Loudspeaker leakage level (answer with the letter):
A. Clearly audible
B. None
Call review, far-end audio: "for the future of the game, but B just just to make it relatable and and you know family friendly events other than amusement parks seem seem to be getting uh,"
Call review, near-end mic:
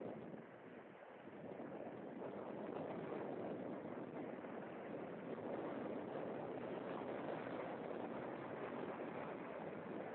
B